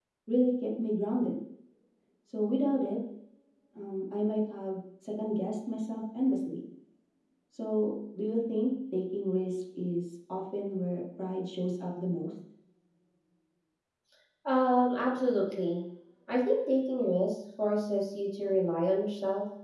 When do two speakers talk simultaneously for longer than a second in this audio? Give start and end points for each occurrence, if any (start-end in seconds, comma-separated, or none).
none